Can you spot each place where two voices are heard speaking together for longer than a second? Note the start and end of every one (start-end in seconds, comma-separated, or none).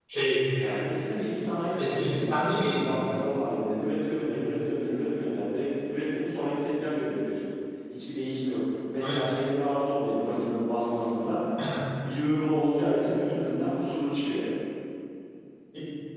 1.8-3.0